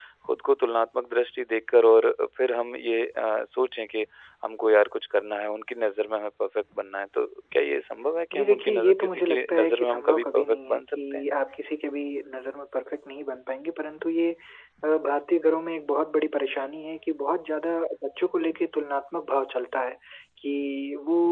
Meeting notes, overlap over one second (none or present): present